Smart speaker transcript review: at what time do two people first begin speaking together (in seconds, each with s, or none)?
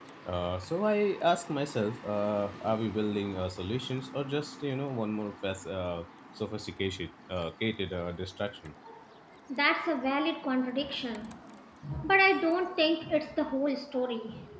none